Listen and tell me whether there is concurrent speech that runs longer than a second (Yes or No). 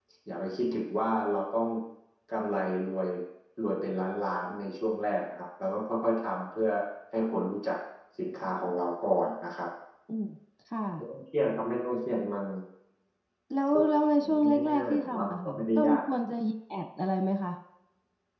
Yes